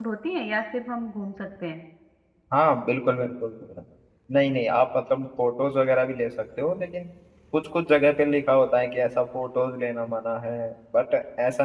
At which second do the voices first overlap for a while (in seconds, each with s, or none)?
none